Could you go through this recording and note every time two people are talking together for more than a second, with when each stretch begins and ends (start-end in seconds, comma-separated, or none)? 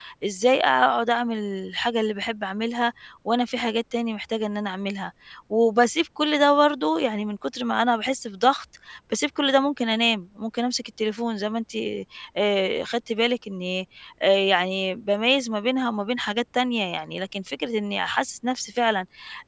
none